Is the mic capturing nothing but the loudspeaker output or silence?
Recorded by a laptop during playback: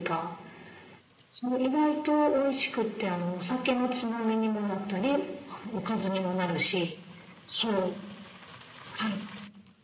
Yes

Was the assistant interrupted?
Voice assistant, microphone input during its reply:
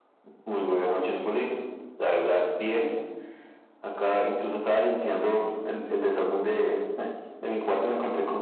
No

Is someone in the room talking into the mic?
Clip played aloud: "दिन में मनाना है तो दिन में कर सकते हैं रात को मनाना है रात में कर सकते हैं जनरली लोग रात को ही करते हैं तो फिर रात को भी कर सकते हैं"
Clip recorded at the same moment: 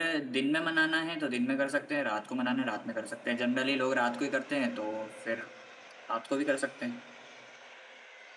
No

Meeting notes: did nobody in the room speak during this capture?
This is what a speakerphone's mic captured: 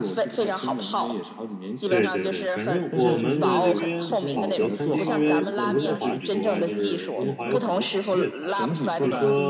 No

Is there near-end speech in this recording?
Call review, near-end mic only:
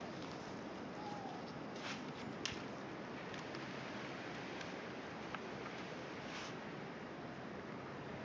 No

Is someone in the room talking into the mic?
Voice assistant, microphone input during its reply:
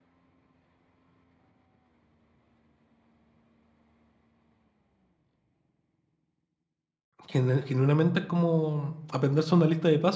Yes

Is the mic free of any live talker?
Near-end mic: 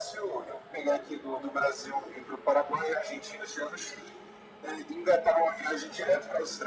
Yes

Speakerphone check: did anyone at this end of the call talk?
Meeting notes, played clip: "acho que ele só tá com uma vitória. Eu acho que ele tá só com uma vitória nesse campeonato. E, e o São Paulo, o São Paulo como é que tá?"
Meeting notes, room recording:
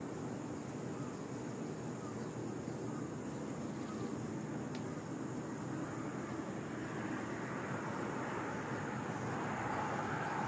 No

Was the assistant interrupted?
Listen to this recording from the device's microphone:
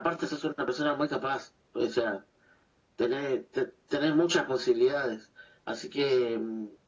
No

